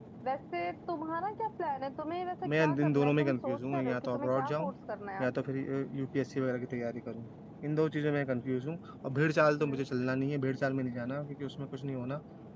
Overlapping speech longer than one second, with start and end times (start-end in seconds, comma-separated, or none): 2.4-4.7